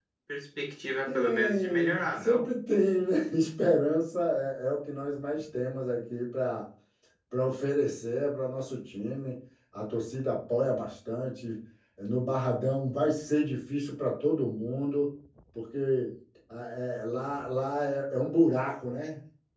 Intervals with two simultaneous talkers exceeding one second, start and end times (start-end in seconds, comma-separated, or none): 1.1-2.4